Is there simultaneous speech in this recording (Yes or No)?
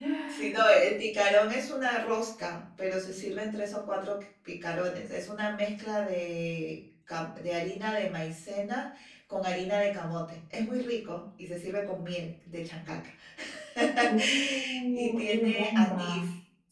Yes